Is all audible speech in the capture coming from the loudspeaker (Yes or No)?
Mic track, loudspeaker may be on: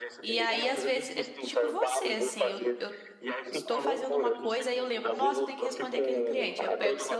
No